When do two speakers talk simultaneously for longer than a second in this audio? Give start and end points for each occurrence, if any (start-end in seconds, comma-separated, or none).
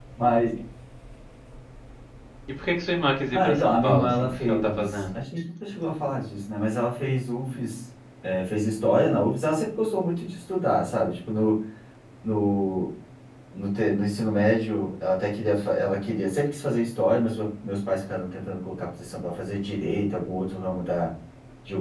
3.3-5.0